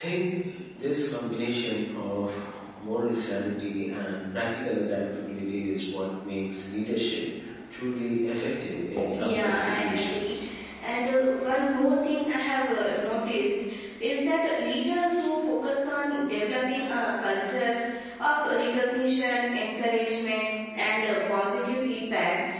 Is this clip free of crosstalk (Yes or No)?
No